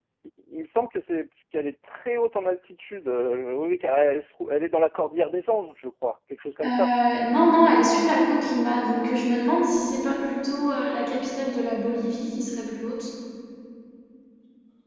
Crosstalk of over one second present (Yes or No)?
No